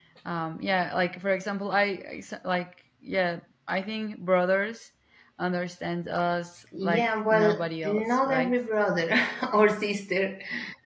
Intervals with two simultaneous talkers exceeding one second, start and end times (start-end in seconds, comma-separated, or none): 6.8-8.5